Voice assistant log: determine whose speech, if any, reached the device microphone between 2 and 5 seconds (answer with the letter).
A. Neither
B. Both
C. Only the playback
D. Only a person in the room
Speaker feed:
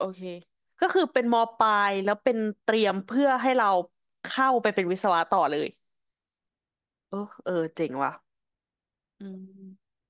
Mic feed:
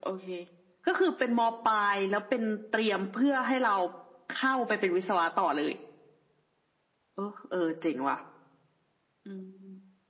C